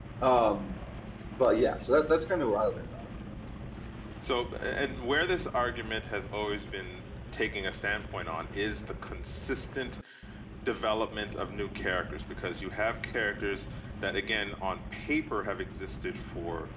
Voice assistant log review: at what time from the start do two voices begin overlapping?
none

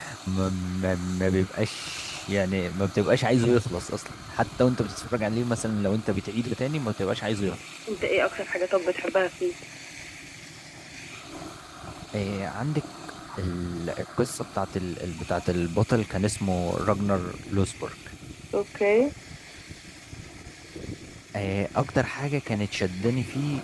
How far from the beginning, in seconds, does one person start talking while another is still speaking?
none

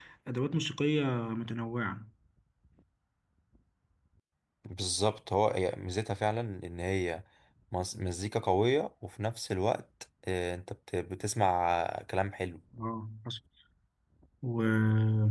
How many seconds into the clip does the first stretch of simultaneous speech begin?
none

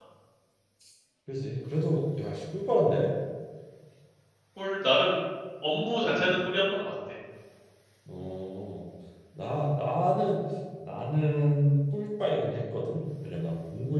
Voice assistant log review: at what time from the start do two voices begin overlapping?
none

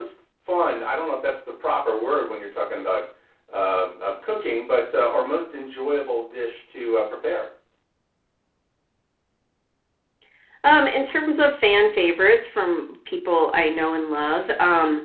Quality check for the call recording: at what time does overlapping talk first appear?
none

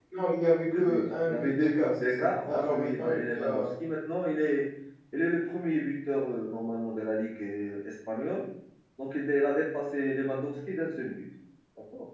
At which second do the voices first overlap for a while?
0.7 s

